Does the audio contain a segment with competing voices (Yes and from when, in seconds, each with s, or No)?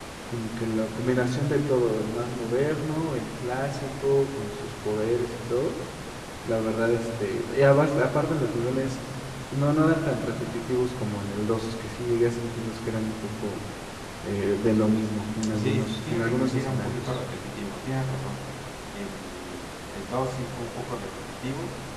Yes, from 15.5 s